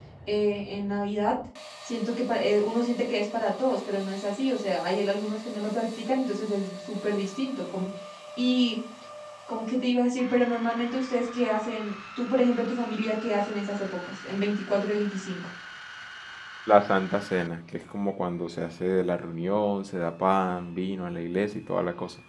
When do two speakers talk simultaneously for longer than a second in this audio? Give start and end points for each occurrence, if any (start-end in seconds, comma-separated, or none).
none